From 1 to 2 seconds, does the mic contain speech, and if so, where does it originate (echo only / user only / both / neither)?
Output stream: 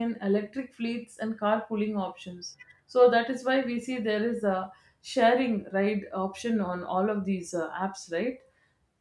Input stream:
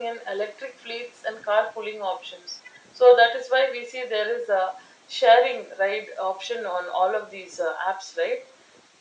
echo only